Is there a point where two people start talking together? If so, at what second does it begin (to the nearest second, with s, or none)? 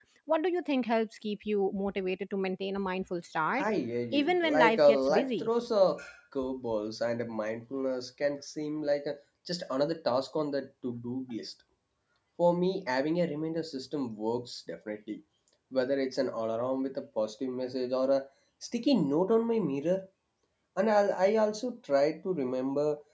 4 s